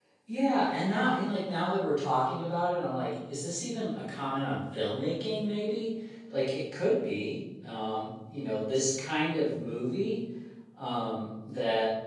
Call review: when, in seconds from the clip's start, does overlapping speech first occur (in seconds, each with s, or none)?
none